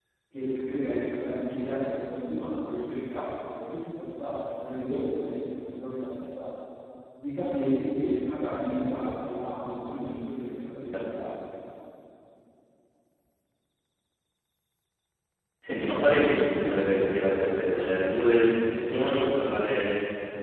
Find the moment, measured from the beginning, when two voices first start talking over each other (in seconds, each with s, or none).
none